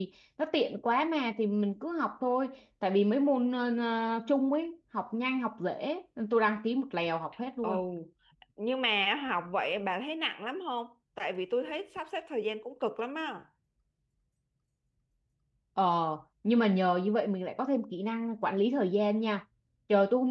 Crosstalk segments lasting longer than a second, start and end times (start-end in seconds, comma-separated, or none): none